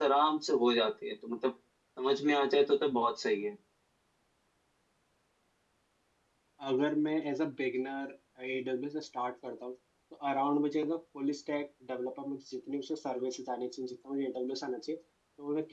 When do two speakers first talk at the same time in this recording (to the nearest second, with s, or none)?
none